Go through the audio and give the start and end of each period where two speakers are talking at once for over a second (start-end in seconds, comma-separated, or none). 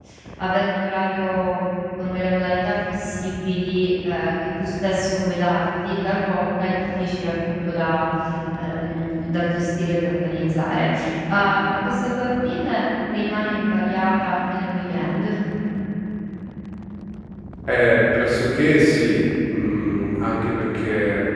none